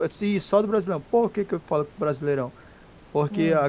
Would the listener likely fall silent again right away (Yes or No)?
Yes